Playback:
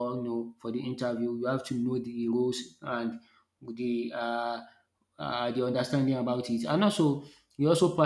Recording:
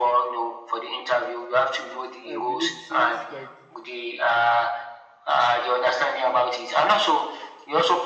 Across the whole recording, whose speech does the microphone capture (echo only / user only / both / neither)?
both